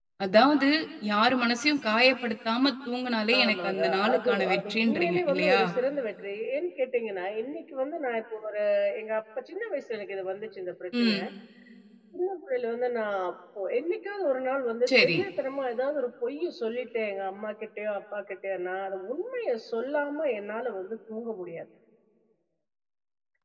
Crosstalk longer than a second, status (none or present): present